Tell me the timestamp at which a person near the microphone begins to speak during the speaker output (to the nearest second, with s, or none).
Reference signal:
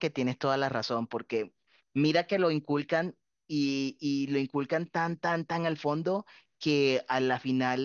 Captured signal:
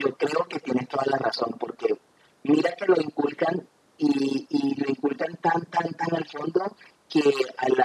none